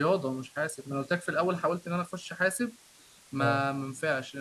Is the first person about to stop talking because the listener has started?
No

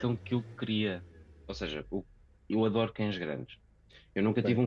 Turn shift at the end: No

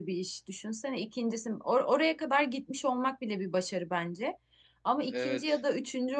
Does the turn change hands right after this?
No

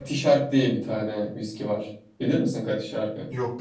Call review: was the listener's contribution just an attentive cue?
Yes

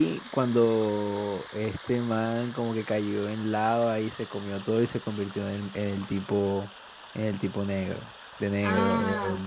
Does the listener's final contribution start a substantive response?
Yes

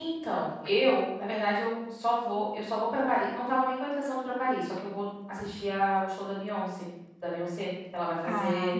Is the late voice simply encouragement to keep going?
Yes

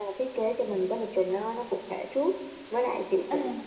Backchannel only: Yes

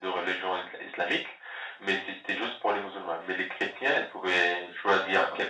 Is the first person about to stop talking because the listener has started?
No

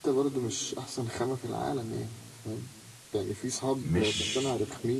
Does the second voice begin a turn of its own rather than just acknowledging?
No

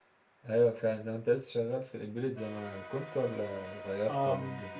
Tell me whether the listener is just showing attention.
No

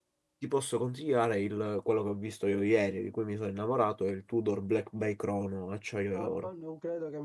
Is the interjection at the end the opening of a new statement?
Yes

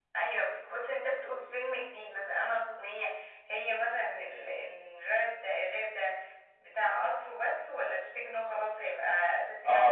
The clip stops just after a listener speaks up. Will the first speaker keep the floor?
No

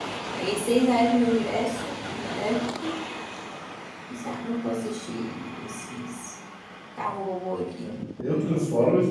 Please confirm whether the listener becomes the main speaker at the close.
Yes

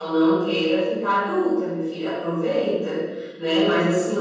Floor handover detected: No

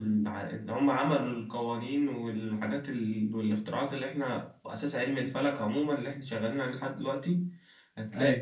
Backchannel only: Yes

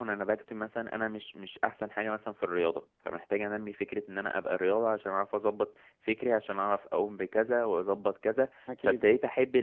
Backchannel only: Yes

